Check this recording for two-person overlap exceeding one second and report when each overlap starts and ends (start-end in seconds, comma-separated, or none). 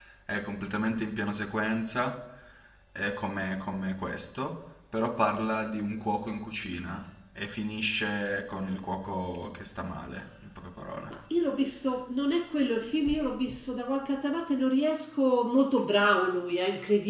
none